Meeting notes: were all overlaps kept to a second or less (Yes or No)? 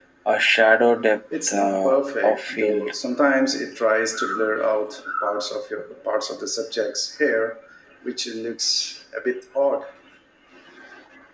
No